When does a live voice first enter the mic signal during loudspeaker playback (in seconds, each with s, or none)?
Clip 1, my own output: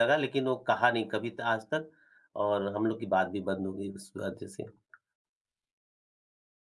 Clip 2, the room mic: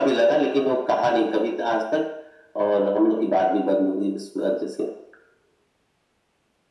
none